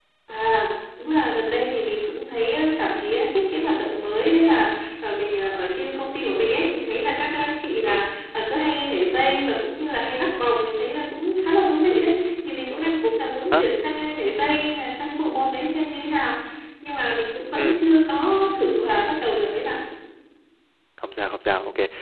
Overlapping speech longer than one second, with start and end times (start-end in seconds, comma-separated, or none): none